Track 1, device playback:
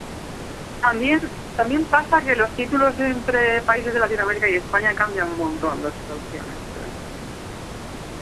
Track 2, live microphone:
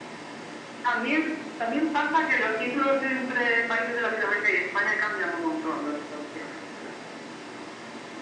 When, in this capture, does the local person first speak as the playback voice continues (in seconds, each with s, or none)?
none